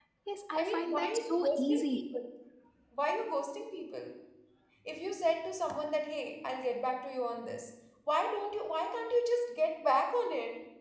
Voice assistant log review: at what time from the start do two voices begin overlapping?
0.6 s

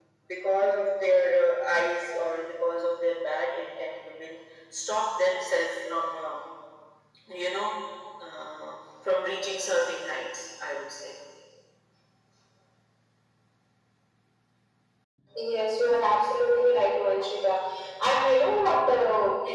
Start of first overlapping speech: none

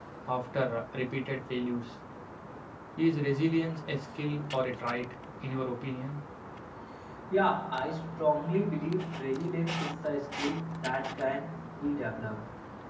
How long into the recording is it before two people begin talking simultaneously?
none

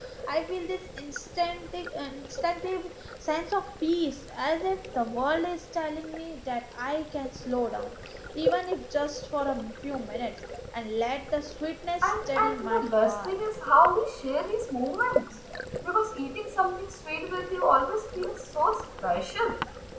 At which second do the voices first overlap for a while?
12.0 s

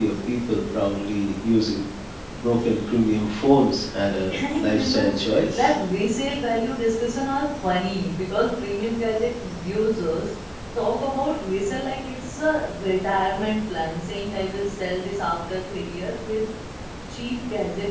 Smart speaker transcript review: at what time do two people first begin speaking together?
4.3 s

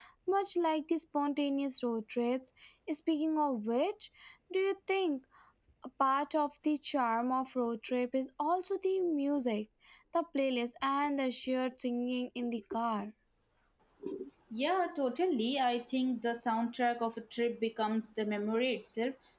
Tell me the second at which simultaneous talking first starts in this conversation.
none

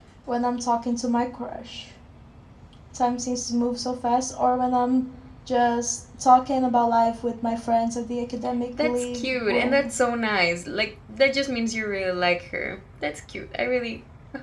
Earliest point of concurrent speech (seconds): 8.8 s

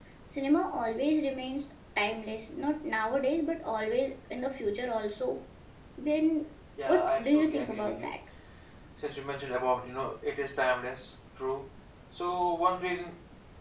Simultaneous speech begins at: 6.9 s

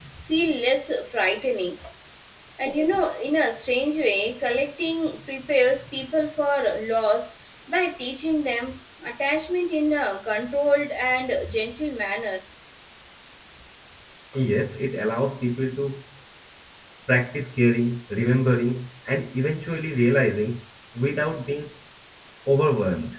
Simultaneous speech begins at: none

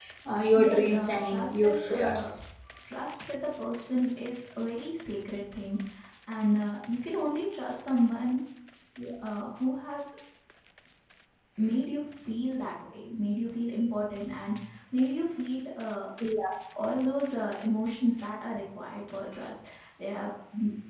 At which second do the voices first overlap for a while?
0.5 s

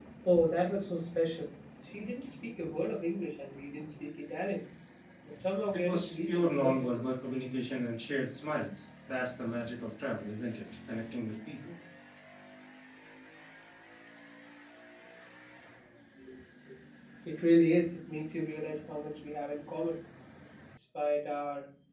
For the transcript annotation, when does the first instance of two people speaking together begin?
5.7 s

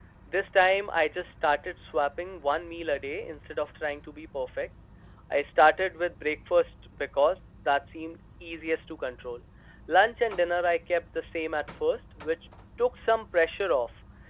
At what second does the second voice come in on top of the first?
none

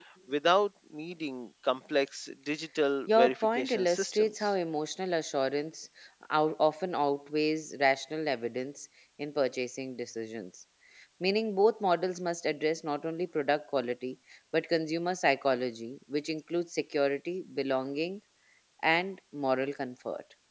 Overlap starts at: 3.1 s

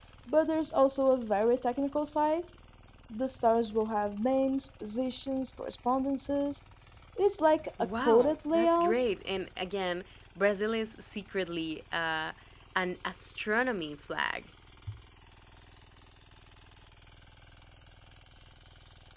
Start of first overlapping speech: 7.8 s

